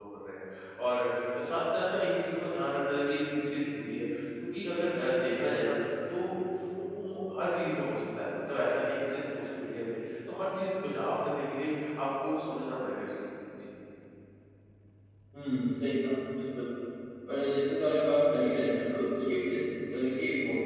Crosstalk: none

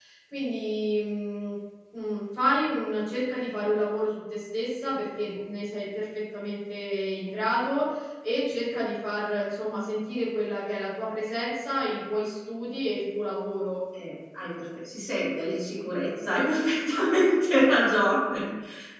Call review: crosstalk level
none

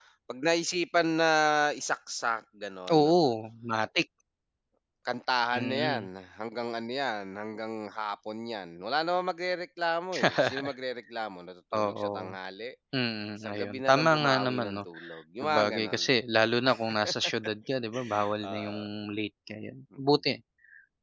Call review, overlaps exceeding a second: present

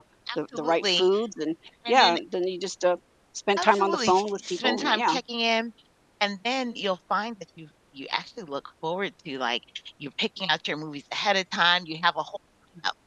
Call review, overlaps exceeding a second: present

